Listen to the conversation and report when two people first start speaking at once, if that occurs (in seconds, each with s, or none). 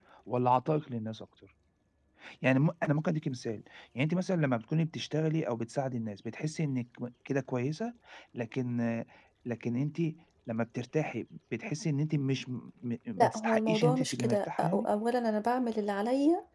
13.2 s